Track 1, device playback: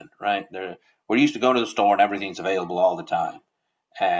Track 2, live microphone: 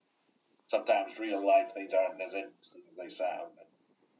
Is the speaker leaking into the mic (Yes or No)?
No